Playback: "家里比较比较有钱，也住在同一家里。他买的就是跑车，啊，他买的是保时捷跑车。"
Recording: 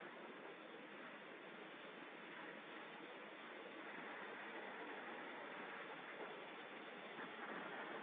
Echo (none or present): none